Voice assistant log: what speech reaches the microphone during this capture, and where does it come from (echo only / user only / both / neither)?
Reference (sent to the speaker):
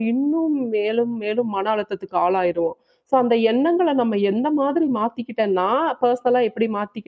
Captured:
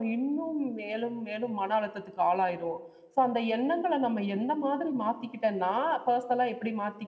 echo only